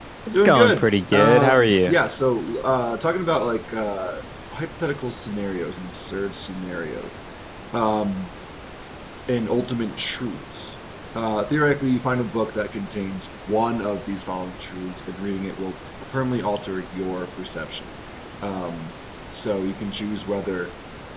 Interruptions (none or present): present